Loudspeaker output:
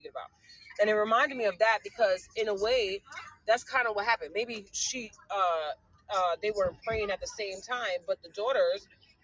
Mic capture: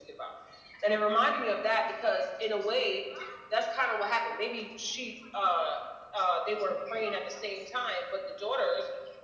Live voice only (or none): none